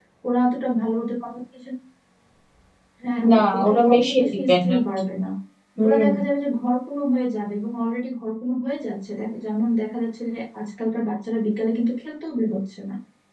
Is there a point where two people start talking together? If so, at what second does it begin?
3 s

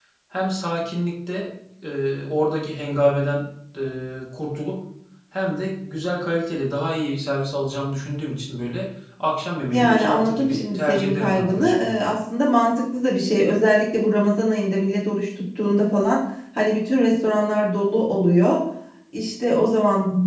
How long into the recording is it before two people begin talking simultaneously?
10 s

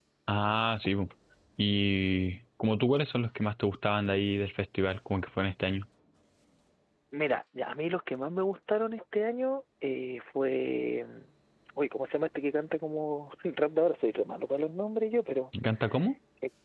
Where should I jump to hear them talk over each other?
none

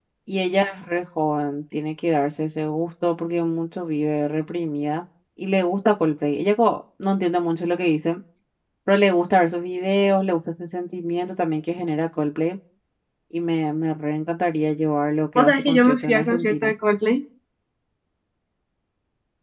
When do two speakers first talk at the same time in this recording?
15 s

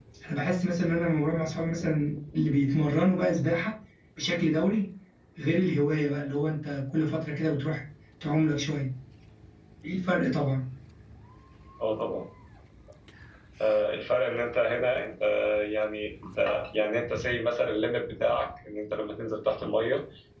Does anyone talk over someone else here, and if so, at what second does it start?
none

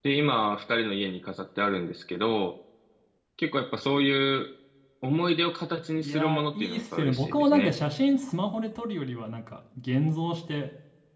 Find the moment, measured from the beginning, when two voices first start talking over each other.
6 s

